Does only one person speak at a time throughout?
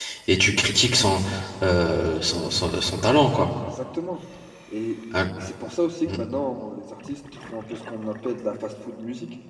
Yes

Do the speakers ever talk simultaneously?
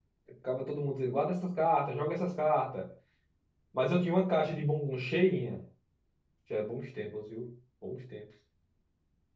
No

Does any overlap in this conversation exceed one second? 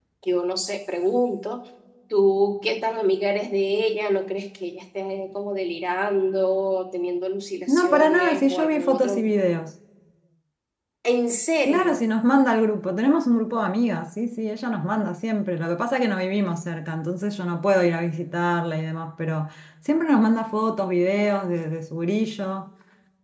Yes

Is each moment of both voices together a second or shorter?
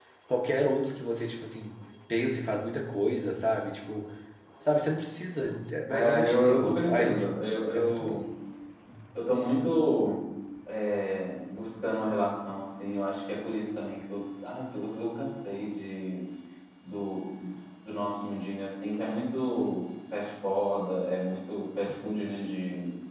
No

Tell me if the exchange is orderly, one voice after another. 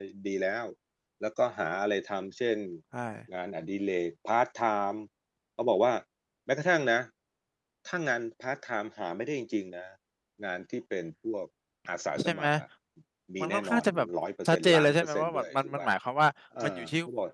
No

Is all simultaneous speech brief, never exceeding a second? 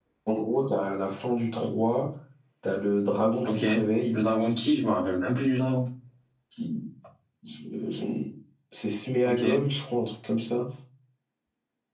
Yes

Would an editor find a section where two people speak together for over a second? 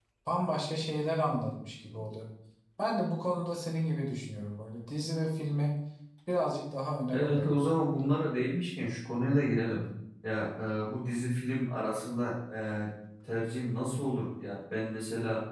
No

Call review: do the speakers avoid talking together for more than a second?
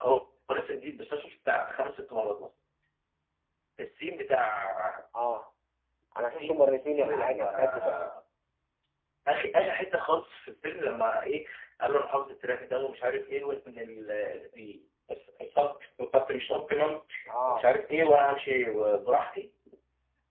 No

